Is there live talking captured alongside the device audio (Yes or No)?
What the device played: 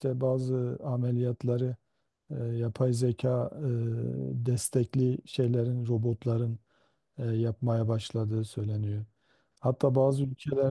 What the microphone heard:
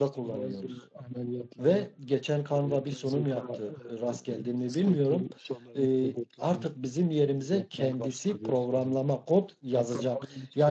Yes